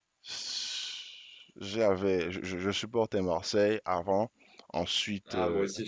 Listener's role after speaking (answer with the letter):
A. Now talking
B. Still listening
A